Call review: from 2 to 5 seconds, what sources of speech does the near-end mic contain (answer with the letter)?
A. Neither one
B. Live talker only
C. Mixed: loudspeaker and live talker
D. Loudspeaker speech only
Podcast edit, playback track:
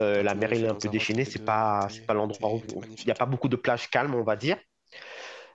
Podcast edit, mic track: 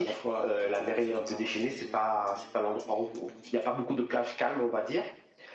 D